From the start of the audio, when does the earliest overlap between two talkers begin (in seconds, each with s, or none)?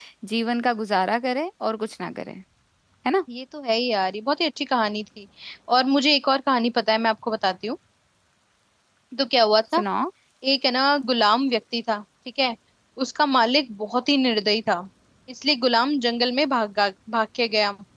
none